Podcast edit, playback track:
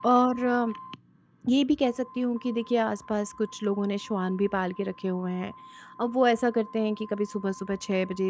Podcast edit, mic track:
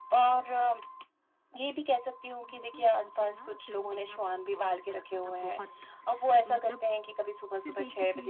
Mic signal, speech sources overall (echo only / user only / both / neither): both